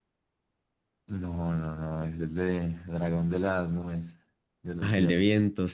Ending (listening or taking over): taking over